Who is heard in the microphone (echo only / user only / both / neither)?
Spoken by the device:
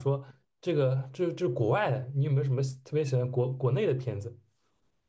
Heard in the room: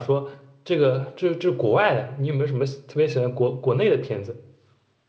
echo only